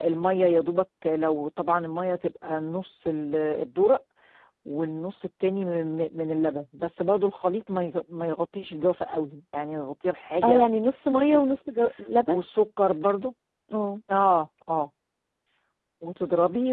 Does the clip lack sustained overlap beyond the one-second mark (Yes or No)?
Yes